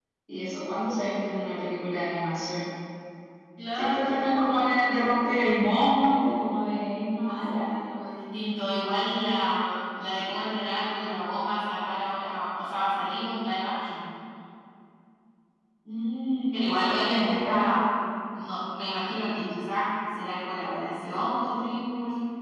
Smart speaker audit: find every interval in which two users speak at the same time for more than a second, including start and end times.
16.5-17.7

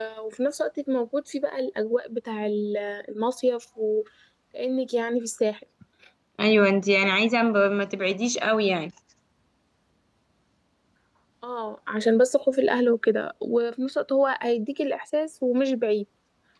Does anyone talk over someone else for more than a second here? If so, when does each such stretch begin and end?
none

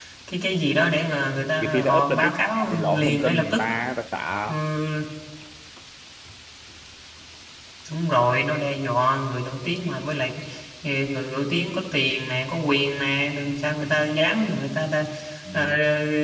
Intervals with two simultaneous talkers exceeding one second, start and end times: 1.6-3.6

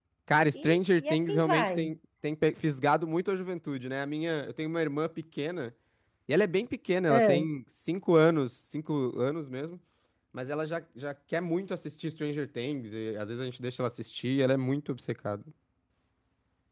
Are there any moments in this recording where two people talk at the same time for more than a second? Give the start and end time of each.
0.5-1.9

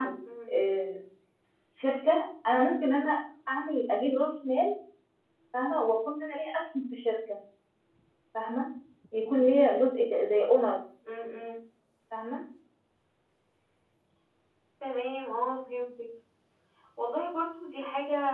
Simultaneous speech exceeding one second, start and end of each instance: none

